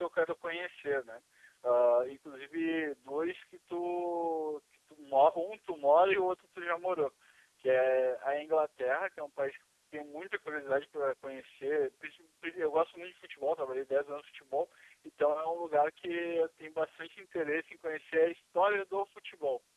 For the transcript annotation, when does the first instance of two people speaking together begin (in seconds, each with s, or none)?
none